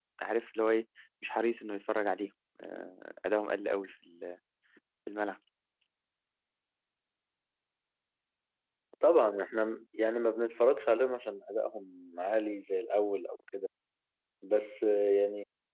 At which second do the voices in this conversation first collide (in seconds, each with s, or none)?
none